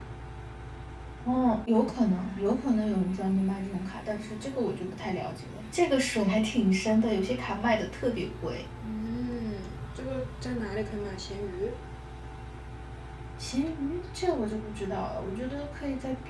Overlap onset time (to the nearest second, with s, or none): none